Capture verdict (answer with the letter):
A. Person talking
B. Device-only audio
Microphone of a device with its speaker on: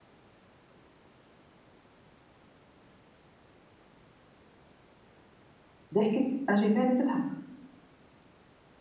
A